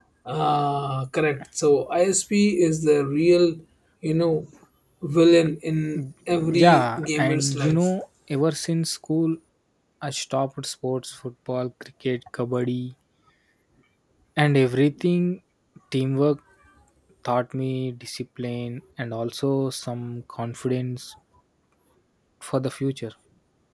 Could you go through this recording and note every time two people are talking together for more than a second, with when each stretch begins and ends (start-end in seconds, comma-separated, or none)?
6.5-7.9